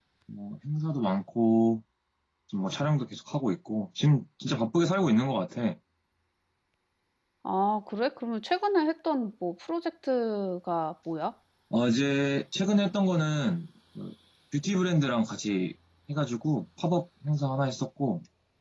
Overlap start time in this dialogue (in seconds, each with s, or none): none